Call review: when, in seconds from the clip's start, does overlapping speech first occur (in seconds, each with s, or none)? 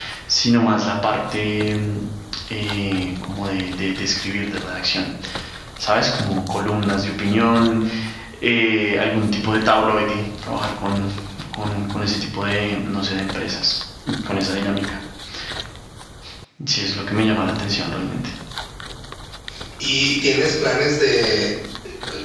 none